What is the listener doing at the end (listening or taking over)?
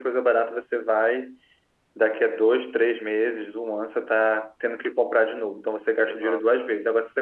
listening